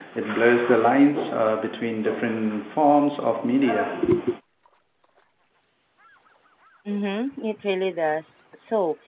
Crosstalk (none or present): none